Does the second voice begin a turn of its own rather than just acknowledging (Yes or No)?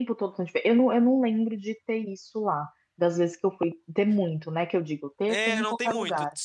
Yes